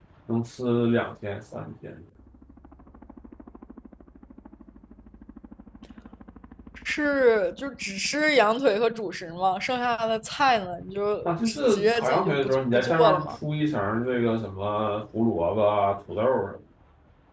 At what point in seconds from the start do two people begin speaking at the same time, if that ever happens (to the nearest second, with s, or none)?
11 s